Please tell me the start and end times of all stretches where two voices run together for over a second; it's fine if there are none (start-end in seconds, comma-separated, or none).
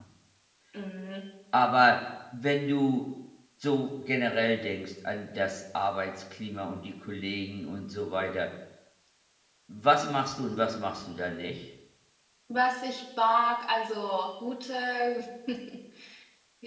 none